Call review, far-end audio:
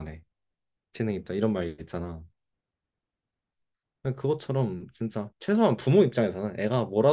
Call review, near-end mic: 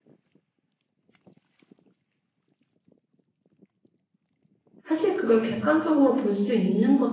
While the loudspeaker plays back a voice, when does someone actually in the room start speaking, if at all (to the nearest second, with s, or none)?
5 s